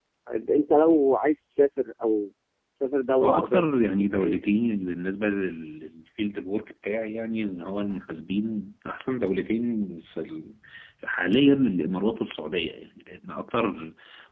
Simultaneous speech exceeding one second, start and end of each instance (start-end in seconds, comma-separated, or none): 3.2-4.5